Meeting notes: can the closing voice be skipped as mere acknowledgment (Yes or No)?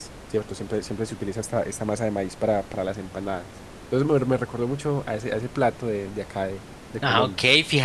No